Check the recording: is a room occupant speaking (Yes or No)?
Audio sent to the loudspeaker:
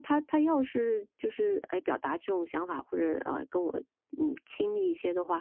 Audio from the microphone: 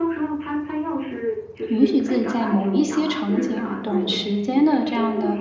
Yes